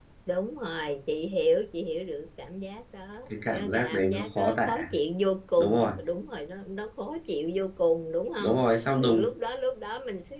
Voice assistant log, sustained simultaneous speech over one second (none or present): present